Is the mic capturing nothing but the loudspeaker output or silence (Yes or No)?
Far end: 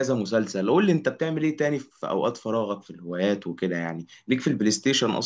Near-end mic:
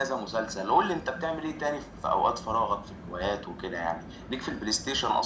Yes